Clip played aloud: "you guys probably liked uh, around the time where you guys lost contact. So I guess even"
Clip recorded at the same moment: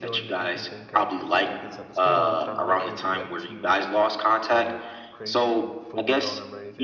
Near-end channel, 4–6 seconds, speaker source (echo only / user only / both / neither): both